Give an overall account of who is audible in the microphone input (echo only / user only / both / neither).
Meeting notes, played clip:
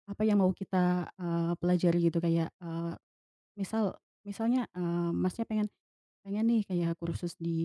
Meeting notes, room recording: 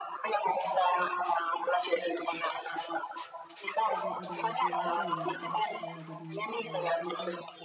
both